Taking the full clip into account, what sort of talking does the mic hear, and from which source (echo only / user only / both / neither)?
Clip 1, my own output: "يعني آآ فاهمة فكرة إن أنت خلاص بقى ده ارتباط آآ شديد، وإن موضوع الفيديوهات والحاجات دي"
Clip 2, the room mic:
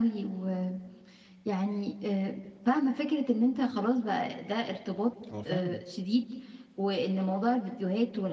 both